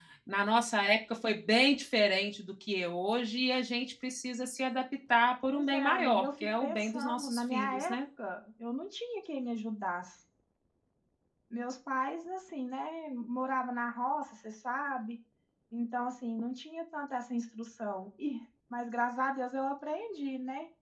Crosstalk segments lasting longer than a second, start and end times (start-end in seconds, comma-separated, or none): 5.5-8.0